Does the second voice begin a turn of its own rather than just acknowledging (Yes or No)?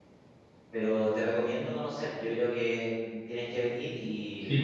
No